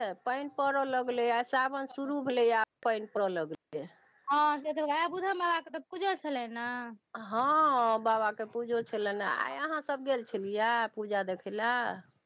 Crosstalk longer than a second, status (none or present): none